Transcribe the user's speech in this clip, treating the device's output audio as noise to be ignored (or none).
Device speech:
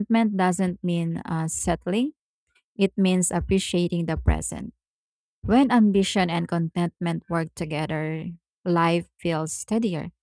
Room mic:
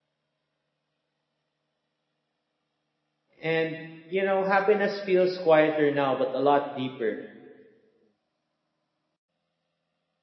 And, you know, happiness feels quieter now, but a lot deeper.